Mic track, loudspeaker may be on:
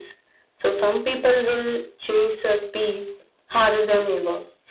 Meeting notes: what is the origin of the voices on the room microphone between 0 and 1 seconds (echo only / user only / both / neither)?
echo only